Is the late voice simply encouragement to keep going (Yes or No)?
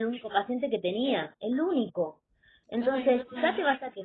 Yes